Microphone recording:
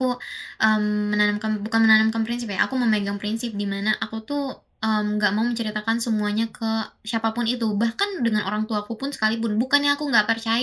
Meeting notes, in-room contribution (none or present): present